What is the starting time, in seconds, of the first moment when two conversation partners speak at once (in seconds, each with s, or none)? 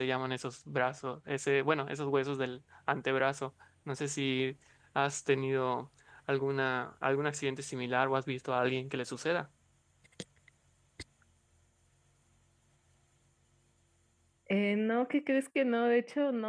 none